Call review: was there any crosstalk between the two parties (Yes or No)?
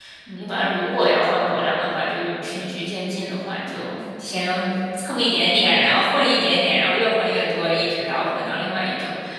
No